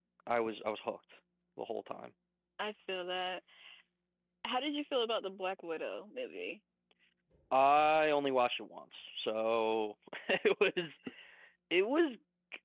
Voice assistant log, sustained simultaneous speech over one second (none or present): none